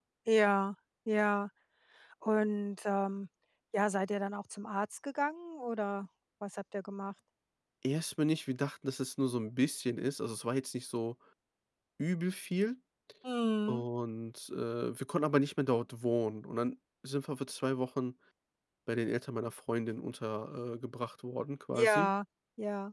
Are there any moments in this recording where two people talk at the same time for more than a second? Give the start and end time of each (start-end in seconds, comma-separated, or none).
none